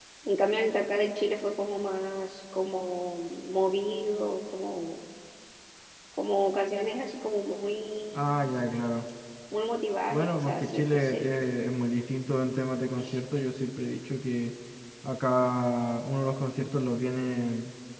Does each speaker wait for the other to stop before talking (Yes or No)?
No